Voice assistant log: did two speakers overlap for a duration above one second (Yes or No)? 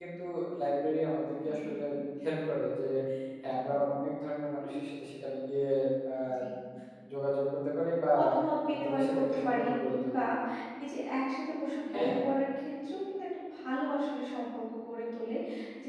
Yes